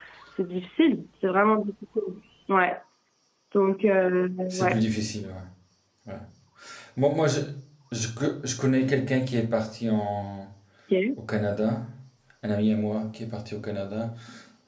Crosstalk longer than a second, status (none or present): none